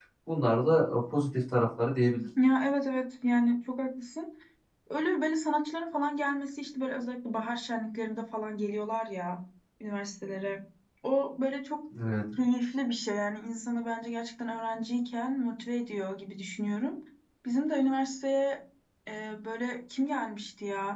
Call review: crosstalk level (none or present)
none